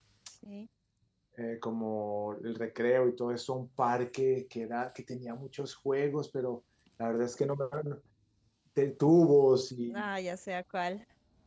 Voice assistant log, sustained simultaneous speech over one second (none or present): none